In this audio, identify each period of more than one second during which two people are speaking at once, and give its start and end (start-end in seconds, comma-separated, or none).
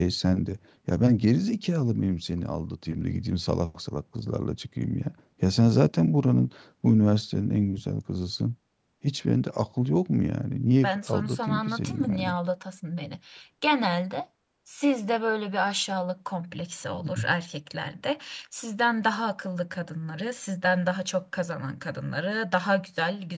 10.8-12.4